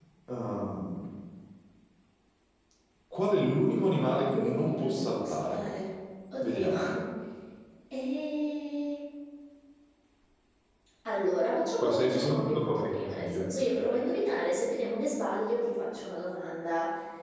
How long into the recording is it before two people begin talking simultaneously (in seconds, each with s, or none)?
4.3 s